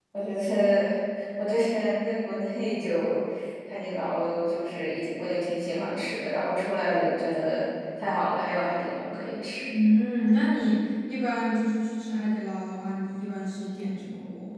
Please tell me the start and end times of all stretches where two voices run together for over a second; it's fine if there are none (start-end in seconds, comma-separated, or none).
none